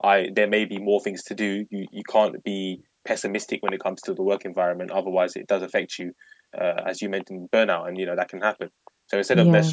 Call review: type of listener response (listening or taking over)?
listening